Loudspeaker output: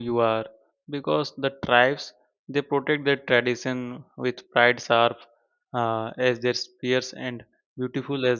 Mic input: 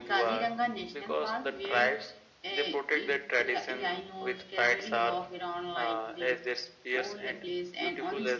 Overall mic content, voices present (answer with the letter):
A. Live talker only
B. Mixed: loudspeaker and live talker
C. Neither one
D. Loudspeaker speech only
B